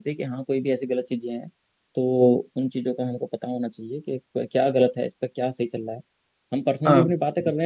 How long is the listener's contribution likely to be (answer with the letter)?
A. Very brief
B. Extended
A